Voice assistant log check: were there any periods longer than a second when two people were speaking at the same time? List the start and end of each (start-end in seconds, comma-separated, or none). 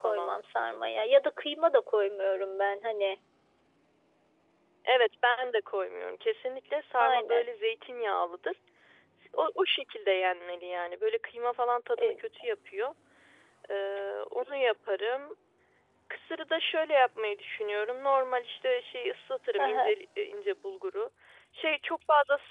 none